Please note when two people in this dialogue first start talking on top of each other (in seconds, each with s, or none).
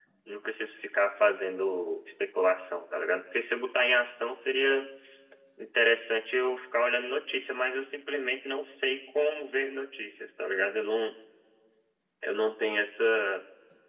none